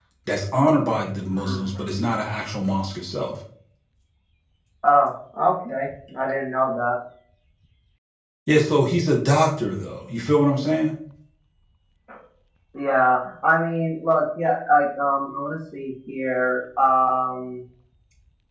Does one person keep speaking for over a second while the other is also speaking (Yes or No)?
No